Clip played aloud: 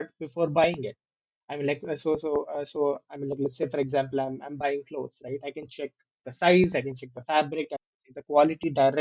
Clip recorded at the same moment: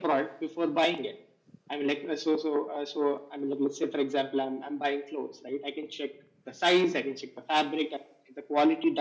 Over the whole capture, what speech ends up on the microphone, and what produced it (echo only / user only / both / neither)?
echo only